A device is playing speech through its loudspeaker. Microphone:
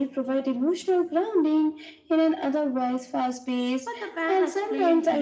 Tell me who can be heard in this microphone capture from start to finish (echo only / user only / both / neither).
both